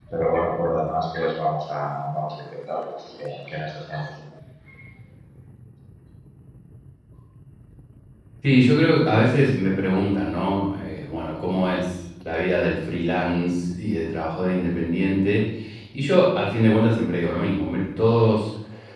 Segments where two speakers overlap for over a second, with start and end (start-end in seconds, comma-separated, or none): none